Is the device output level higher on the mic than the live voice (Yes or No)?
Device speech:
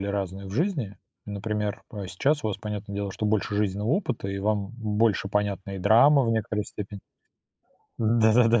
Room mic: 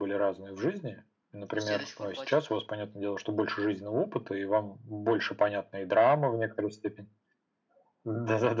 Yes